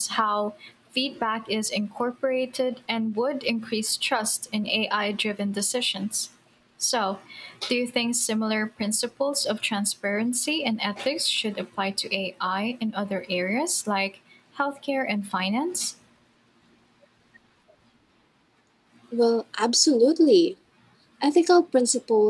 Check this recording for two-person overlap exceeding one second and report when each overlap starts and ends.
none

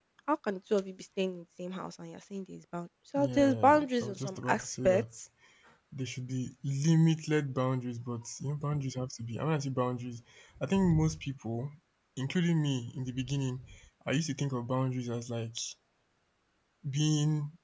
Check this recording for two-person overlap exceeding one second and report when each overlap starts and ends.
3.2-5.0

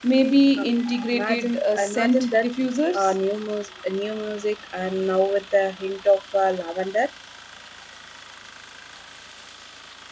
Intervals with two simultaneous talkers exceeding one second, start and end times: 1.1-2.5

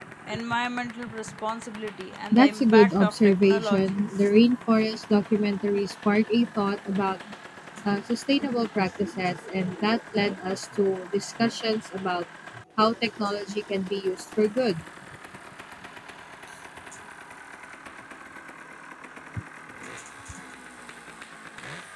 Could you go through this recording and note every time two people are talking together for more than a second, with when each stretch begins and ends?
2.3-4.0

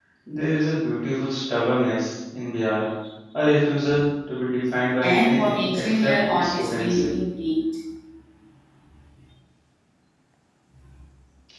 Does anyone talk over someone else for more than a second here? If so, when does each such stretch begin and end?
5.0-7.1

